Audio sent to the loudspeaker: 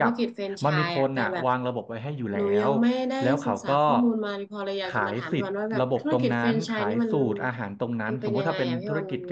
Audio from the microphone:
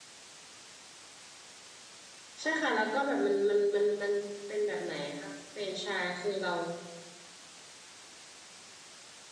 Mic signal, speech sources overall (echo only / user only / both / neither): user only